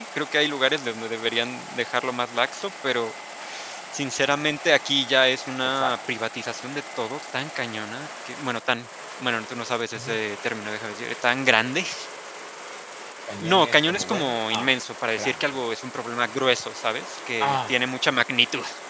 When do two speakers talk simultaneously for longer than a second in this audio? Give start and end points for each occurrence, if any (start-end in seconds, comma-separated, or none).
13.4-14.7